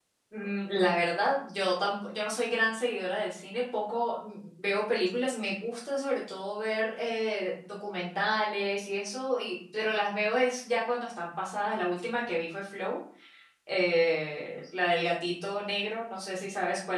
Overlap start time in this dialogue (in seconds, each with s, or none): none